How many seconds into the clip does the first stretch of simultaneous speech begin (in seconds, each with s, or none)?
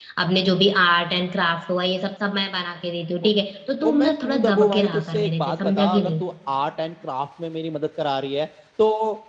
3.9 s